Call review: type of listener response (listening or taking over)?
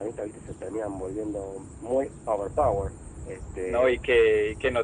taking over